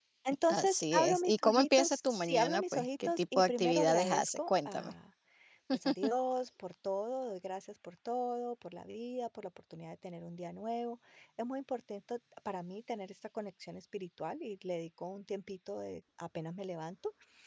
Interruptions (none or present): present